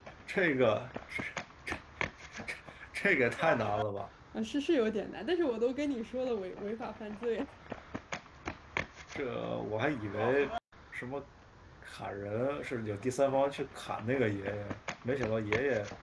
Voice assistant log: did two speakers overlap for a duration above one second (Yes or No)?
No